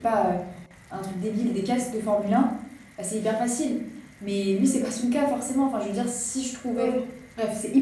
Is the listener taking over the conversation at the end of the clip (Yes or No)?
No